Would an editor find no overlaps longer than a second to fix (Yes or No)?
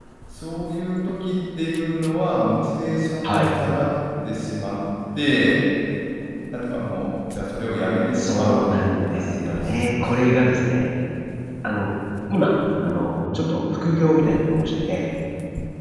No